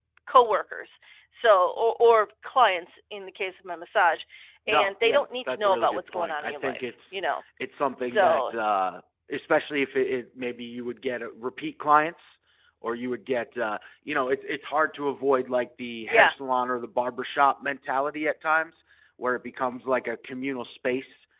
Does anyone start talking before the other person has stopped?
Yes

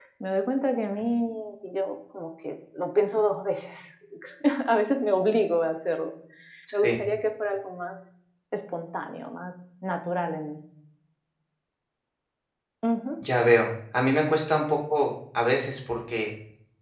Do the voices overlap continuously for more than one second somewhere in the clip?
No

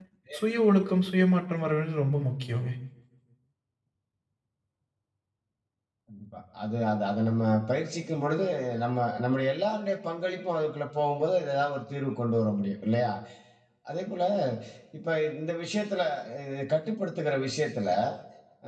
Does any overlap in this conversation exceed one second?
No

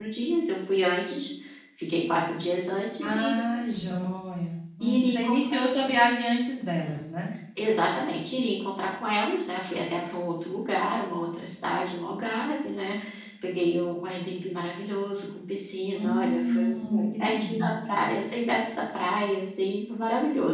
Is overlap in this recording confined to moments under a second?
No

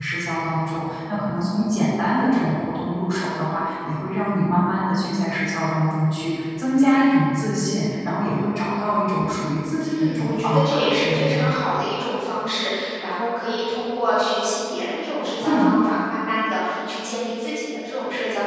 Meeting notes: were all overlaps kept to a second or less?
No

